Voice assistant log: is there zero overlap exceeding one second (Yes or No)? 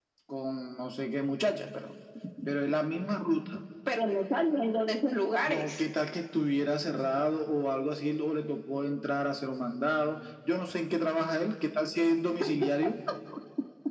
Yes